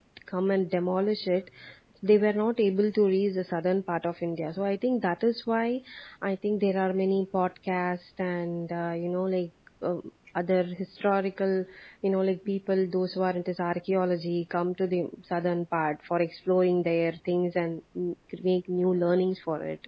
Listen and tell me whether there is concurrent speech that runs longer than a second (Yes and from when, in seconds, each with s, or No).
No